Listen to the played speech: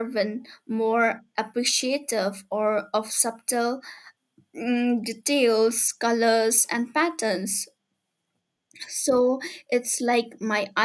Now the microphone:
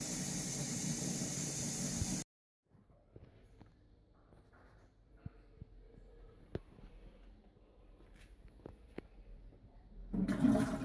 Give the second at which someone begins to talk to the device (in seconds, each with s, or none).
none